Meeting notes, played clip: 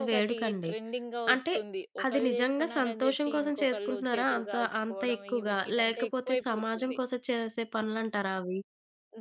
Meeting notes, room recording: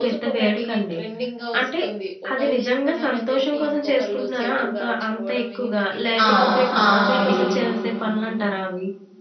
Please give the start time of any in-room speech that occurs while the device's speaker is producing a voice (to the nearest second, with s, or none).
6 s